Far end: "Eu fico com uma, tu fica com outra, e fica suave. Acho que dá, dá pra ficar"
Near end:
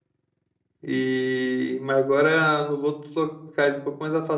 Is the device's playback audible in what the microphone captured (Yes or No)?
No